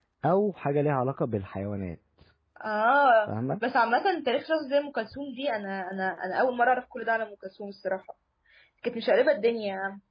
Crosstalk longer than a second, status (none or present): none